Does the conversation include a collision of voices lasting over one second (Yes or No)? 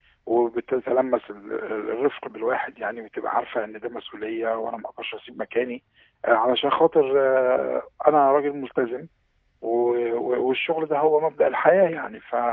No